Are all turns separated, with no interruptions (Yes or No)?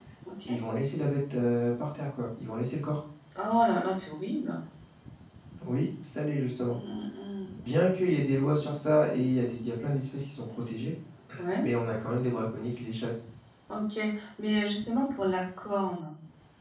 Yes